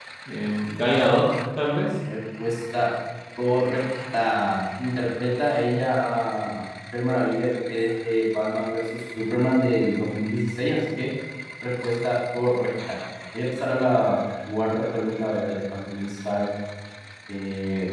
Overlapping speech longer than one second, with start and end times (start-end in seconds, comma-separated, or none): none